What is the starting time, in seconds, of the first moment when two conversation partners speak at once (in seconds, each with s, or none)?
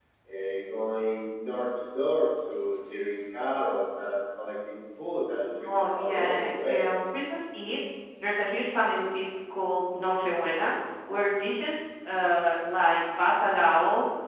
5.6 s